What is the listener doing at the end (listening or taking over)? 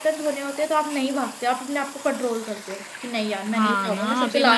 taking over